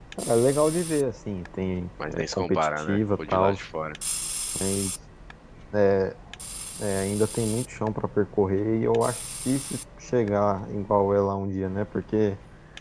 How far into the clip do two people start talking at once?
2.0 s

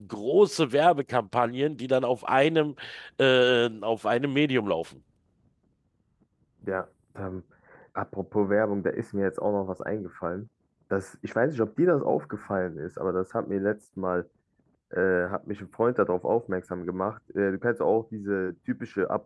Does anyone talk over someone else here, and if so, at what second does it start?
none

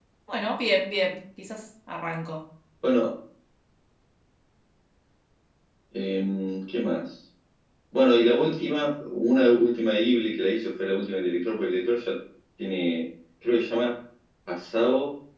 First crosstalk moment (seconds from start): none

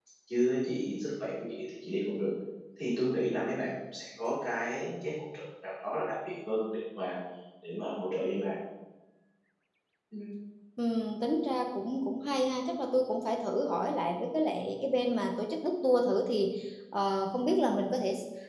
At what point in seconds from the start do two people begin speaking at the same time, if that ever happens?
none

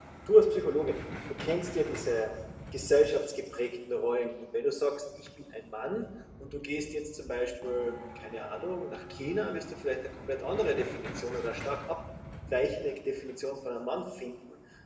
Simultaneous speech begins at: none

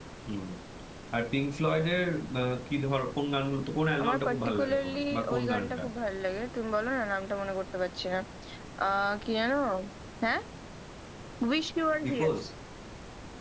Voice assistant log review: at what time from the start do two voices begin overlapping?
4.0 s

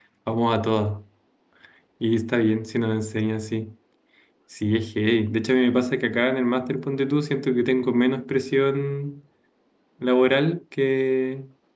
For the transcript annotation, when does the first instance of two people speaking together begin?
none

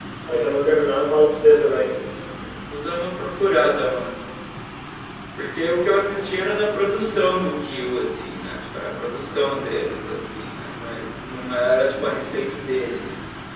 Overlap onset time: none

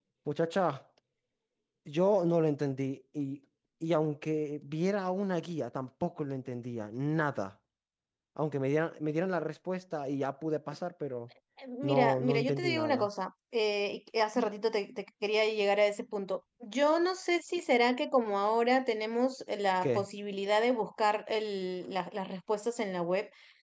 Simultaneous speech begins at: 11.8 s

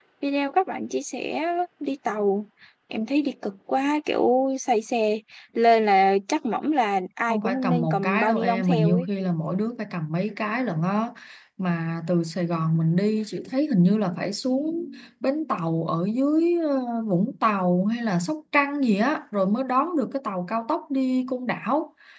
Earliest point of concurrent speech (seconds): 7.3 s

